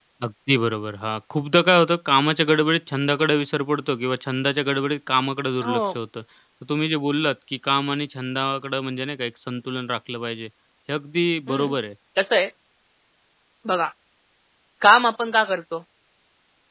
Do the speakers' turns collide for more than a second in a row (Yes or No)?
No